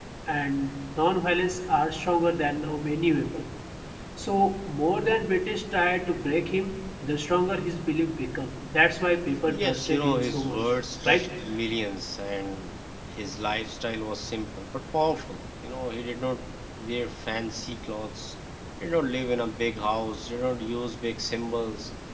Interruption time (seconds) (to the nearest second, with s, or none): 9 s